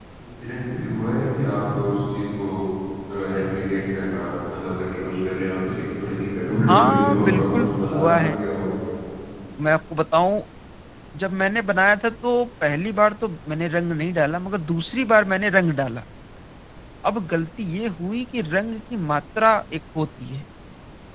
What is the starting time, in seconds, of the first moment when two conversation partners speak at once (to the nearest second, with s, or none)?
7 s